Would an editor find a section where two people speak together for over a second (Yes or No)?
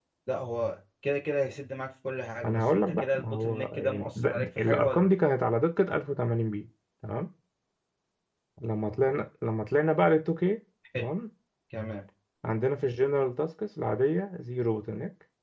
Yes